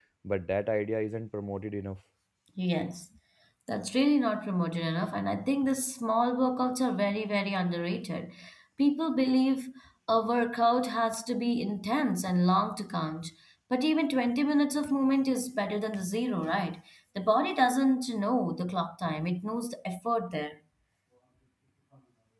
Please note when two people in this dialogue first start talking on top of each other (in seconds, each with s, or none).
none